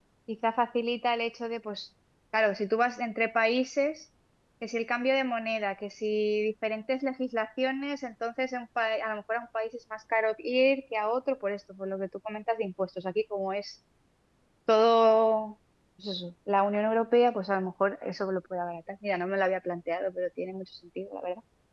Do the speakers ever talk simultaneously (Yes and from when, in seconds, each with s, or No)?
No